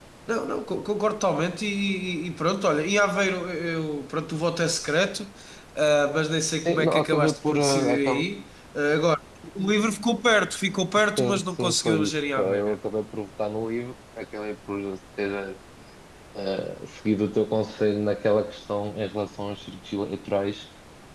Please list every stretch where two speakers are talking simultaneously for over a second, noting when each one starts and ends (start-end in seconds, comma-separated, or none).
6.7-8.2, 11.2-12.8